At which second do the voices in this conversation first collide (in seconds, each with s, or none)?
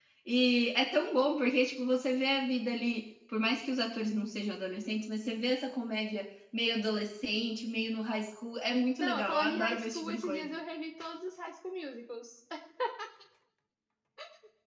9.0 s